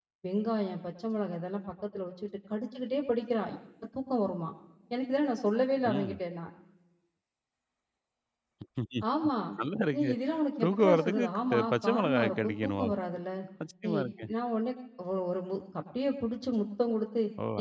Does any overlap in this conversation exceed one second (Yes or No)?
Yes